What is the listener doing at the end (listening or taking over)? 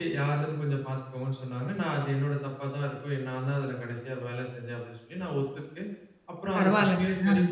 listening